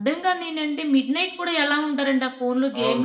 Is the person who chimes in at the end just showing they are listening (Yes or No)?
No